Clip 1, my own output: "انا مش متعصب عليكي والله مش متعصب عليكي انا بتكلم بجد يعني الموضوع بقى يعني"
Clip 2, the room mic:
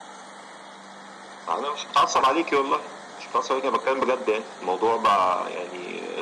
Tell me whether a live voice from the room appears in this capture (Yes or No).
No